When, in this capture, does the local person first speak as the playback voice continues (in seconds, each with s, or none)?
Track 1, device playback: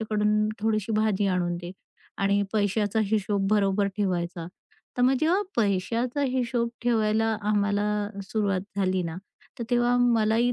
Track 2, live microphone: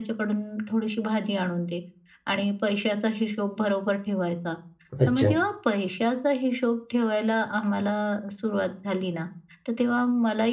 5.0 s